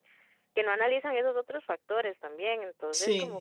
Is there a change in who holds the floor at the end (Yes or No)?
No